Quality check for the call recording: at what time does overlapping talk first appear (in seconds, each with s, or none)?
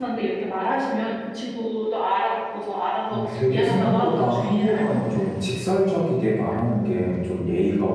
3.1 s